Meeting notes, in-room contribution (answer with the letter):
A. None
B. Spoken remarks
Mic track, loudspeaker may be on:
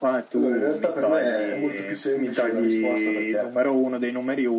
A